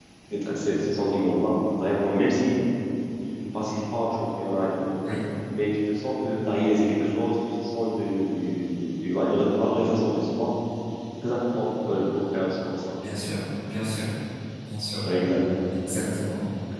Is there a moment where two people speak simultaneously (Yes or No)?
No